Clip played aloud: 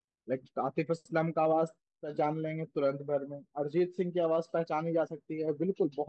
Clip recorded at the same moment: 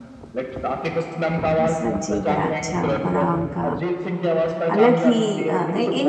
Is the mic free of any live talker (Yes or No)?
No